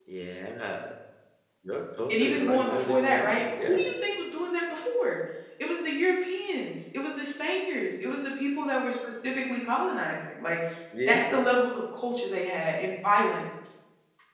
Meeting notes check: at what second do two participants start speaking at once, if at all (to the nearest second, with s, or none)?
2 s